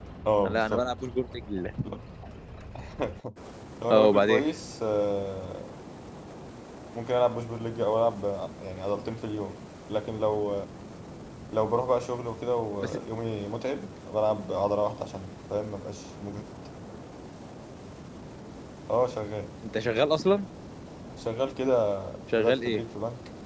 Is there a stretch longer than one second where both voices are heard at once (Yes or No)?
No